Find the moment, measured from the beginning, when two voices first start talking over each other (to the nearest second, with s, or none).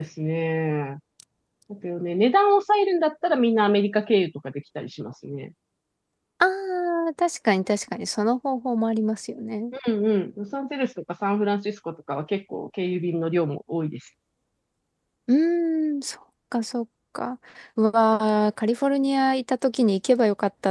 none